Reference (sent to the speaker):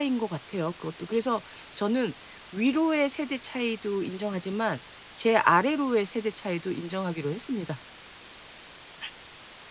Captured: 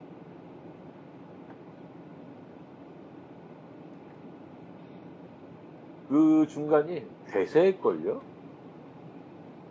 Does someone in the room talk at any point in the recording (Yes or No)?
Yes